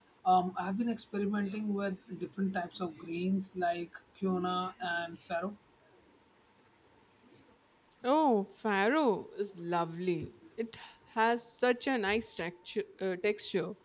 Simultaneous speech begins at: none

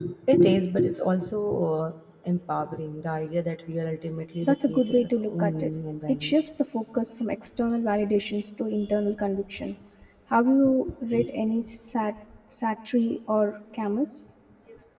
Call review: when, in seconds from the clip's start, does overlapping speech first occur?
4 s

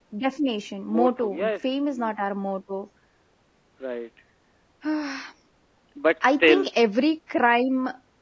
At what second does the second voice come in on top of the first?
1 s

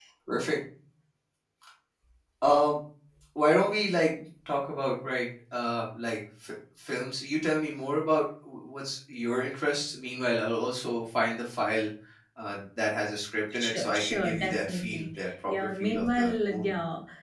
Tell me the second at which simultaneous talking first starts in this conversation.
14 s

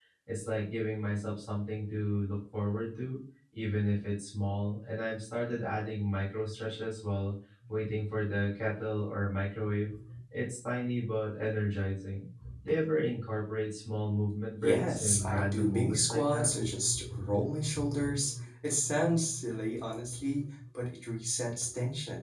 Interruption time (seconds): 15 s

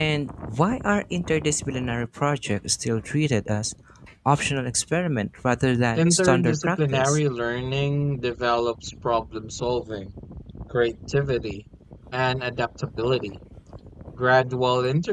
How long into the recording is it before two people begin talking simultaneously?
6 s

